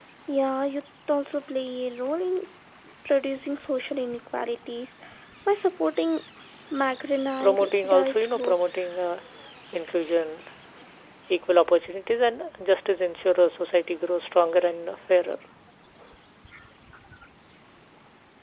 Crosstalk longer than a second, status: present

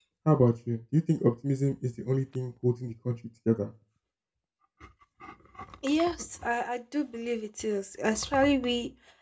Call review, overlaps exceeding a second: none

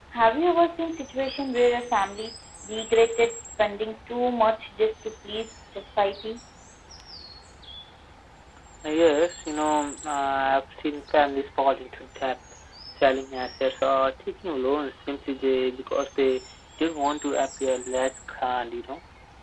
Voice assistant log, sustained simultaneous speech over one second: none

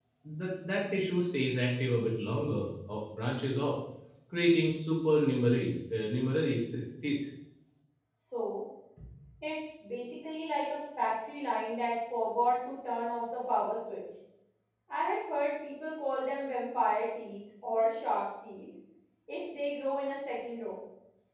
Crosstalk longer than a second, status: none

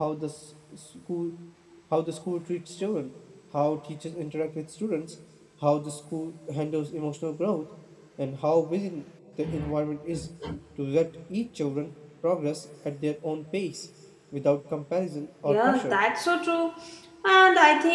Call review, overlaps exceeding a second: none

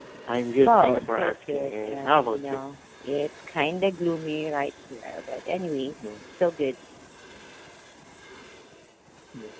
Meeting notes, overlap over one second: present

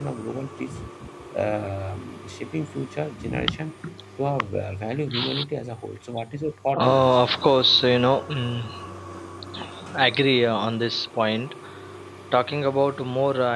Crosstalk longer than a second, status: none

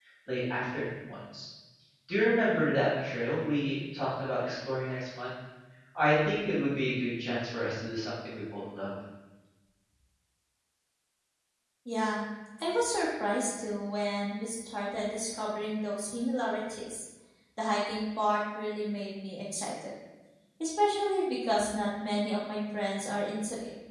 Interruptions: none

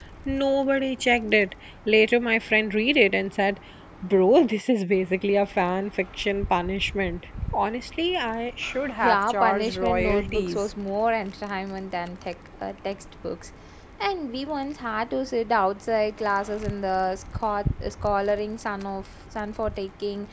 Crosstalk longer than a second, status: present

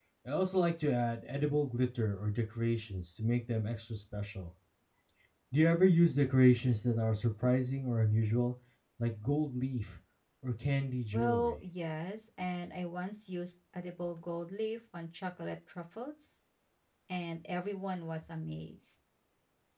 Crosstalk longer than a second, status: none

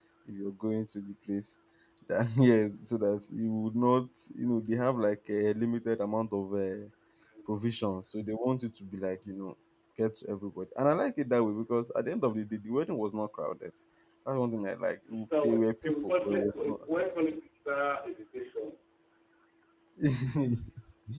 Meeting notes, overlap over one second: present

